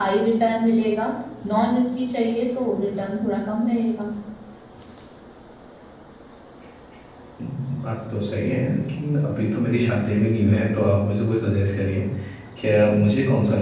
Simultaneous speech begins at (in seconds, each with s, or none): none